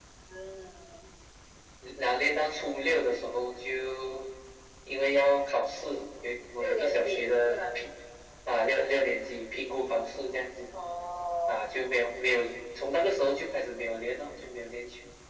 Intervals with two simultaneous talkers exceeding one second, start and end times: 6.6-7.8

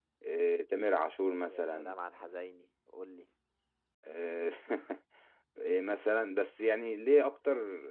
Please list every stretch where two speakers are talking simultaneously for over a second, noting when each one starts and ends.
none

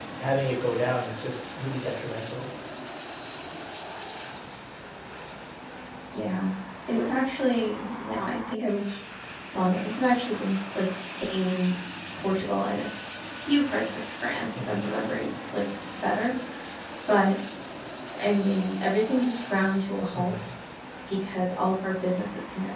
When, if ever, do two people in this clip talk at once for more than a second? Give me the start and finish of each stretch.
none

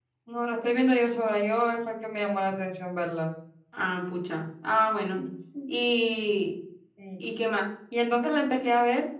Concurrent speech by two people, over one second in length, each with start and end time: none

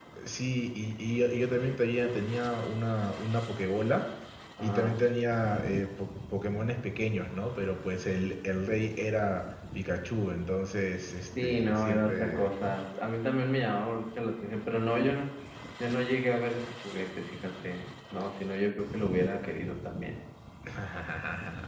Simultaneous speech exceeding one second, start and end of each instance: 11.4-12.7

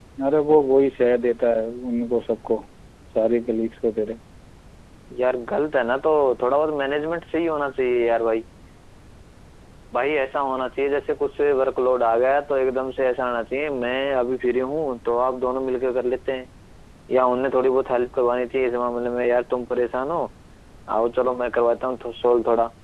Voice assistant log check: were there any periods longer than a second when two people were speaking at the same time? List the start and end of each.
none

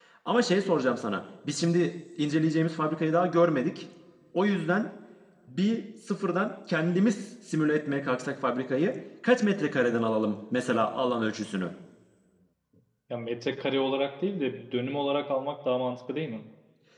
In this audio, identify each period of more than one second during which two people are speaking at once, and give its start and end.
none

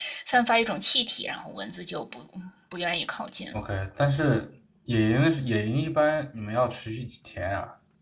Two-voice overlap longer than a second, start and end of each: none

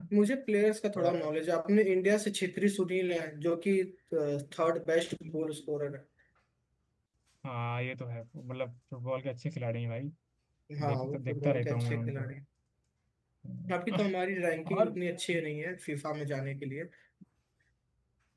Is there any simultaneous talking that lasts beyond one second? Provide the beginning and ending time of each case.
10.8-12.3

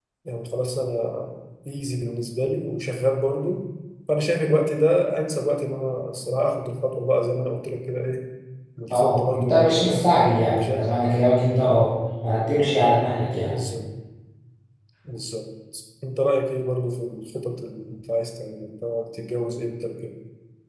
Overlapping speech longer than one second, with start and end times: 8.9-10.9

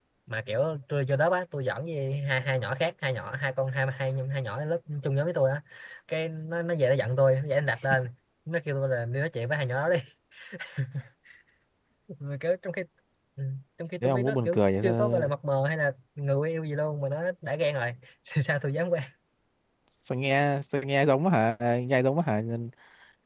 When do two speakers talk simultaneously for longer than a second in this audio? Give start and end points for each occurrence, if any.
14.0-15.3

